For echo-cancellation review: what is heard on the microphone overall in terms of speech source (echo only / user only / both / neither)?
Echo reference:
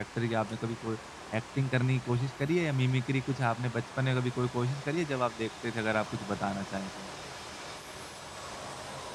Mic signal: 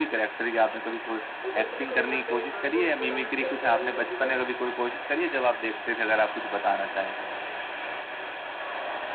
both